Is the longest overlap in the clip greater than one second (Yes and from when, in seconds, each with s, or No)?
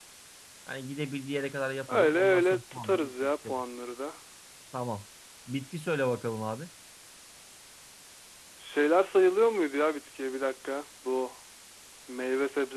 Yes, from 1.9 s